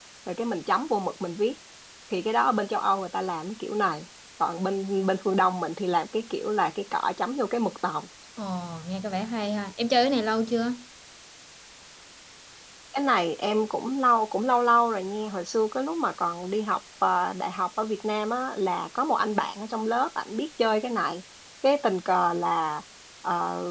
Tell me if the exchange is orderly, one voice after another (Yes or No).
Yes